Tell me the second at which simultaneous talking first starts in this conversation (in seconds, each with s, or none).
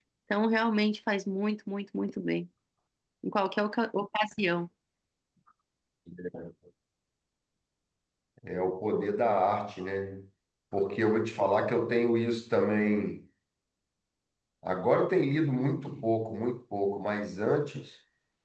none